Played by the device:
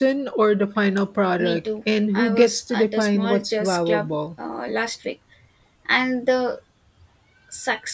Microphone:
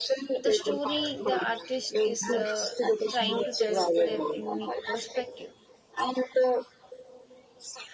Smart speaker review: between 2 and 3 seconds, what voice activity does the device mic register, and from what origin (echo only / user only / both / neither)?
both